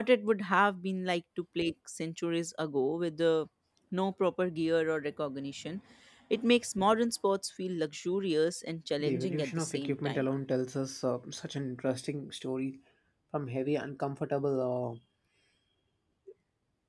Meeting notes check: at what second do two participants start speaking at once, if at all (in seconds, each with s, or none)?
9.0 s